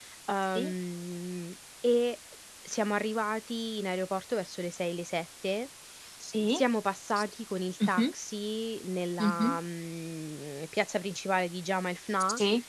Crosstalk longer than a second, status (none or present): none